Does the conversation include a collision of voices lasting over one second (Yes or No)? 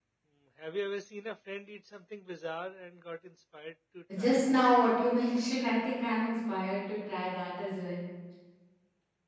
No